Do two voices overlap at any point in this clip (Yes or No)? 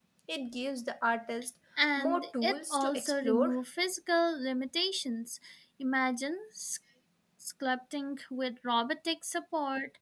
Yes